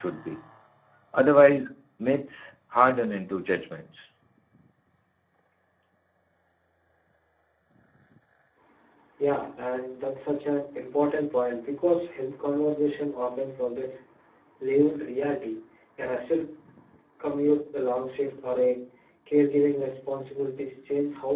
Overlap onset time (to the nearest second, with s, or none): none